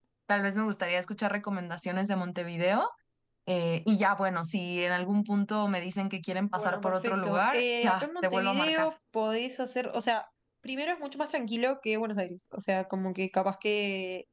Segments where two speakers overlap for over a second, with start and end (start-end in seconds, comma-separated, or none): 6.6-8.9